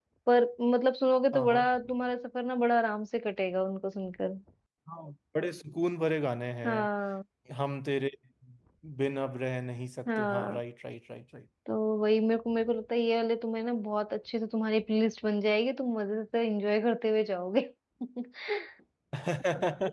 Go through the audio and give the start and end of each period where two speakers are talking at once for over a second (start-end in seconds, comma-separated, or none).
none